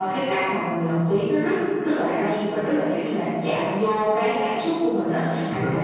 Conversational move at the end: listening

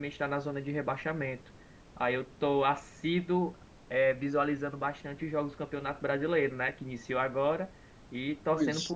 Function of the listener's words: listening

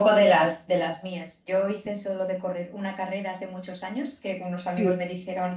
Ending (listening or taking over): listening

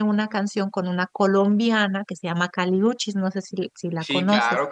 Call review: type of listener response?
taking over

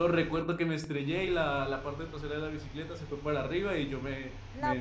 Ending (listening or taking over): taking over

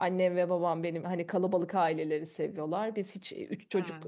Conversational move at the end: listening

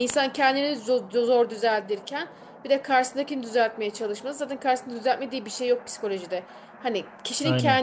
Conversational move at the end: listening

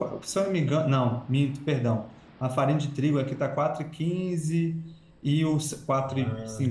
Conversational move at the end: listening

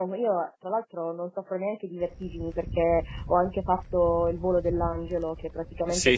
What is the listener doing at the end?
listening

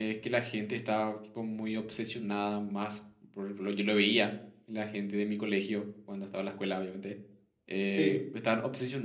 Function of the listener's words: listening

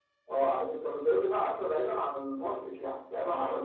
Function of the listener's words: taking over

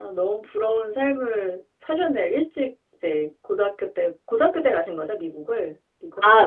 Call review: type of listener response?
taking over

